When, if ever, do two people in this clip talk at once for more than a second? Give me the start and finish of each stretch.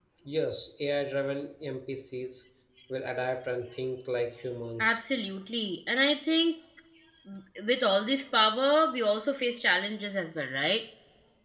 none

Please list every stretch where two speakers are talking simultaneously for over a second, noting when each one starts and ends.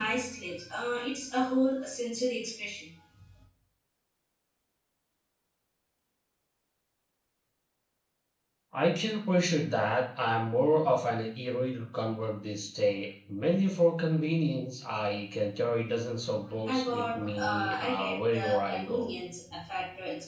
16.6-19.1

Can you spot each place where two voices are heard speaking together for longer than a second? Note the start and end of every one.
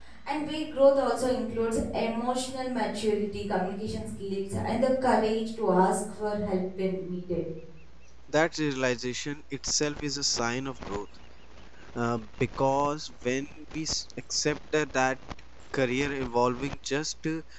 none

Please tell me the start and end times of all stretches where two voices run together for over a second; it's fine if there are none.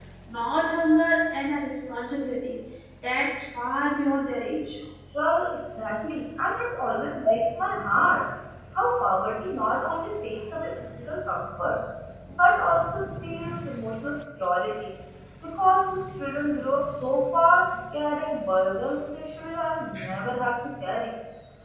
none

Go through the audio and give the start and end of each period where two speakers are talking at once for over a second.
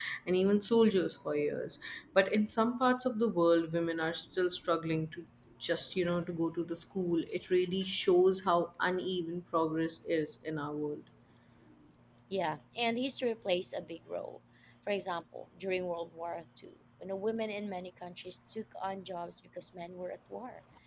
none

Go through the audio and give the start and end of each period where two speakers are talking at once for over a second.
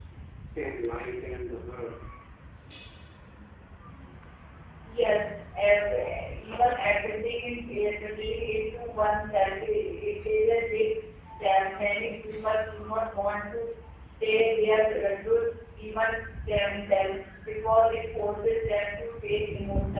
none

